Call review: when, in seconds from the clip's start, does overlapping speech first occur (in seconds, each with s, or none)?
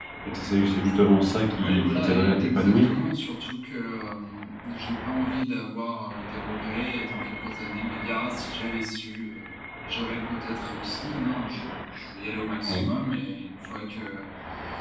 1.6 s